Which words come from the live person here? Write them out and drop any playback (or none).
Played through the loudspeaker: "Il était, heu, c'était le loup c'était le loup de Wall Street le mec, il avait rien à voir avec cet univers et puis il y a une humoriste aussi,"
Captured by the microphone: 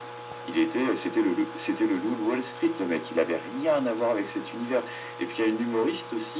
none